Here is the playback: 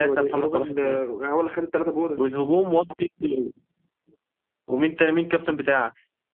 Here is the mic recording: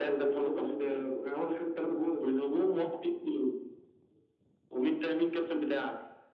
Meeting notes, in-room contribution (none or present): none